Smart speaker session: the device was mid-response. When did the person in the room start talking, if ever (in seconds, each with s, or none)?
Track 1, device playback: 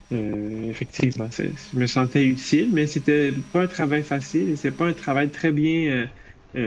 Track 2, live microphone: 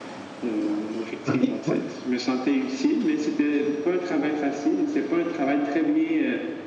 1.2 s